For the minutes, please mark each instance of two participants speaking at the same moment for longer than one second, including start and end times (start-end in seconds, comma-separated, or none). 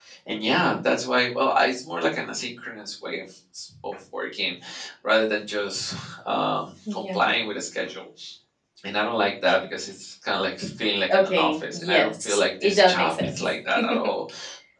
11.1-13.4